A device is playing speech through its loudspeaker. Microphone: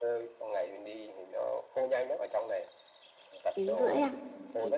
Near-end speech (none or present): present